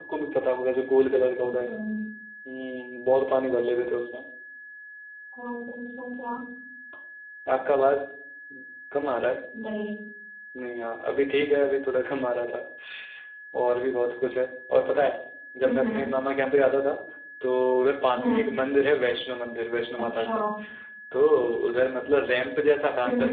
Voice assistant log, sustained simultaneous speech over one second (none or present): none